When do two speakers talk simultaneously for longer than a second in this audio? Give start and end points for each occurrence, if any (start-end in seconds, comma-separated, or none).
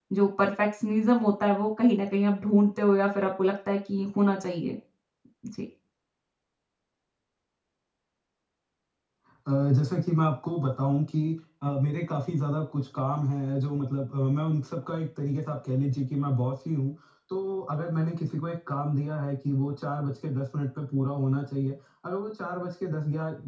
none